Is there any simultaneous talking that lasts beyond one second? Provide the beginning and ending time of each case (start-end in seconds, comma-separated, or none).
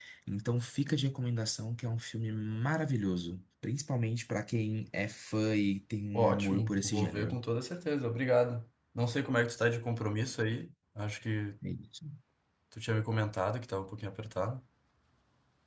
6.1-7.4